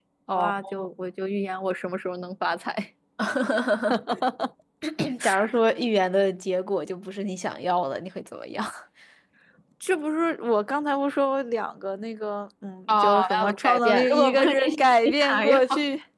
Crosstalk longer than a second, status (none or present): present